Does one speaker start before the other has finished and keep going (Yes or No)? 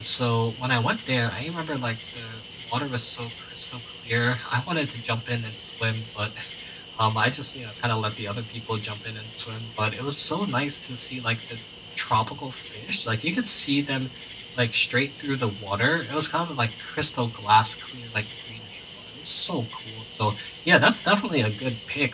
No